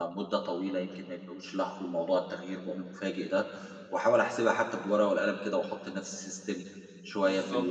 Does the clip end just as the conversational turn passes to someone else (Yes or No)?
No